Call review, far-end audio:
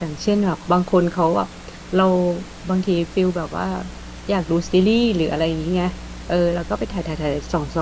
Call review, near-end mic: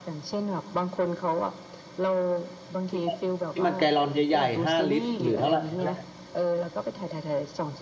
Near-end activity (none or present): present